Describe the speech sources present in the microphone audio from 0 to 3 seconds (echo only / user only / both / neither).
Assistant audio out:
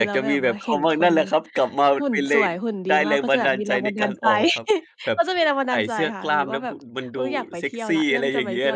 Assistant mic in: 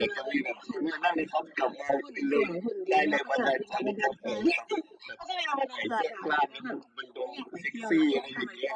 echo only